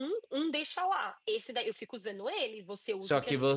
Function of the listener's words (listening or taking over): taking over